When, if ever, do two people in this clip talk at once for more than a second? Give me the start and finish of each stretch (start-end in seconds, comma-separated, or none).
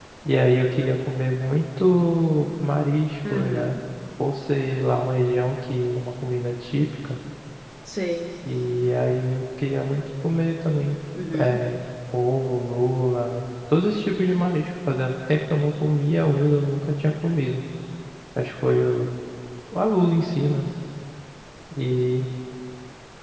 none